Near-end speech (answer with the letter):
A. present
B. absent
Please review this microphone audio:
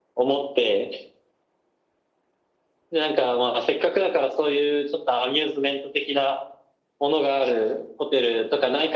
B